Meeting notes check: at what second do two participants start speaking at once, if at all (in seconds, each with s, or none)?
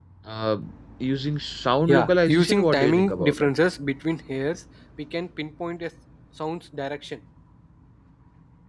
1.9 s